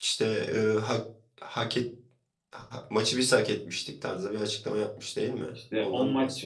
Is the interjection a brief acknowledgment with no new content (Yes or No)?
No